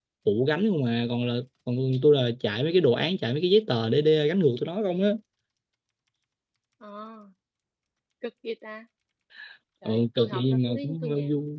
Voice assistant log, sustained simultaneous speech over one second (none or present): present